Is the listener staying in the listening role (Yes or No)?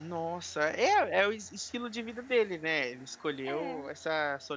Yes